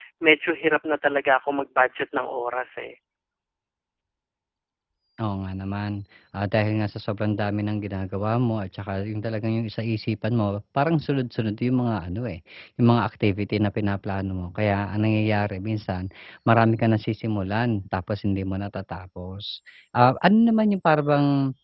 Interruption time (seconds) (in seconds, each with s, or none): none